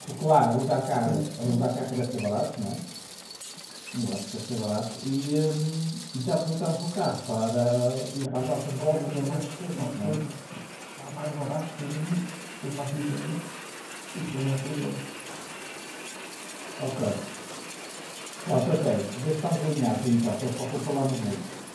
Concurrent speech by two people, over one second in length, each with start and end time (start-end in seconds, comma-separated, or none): 8.8-10.2